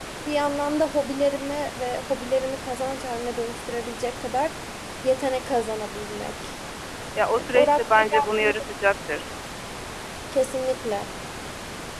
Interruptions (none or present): present